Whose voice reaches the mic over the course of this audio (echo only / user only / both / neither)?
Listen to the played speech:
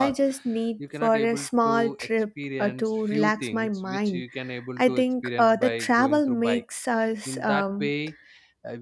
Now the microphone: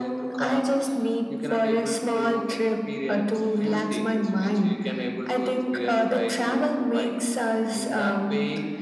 echo only